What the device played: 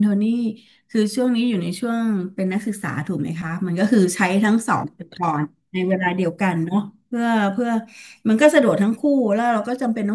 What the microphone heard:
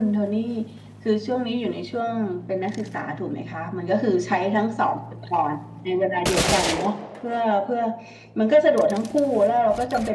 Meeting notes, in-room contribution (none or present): none